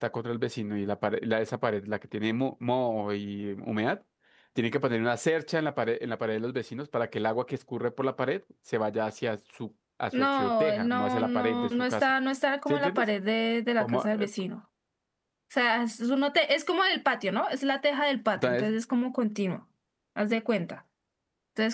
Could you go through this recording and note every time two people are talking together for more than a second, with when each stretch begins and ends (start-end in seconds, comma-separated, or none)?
10.2-12.1